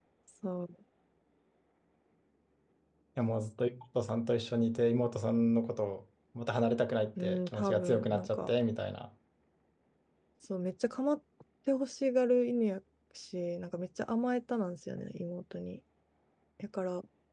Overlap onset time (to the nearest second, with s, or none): 7 s